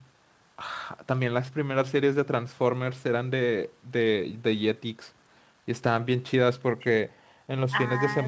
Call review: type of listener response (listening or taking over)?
listening